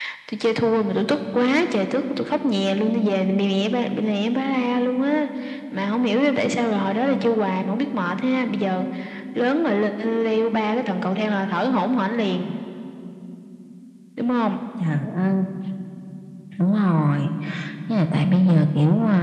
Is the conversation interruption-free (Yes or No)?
Yes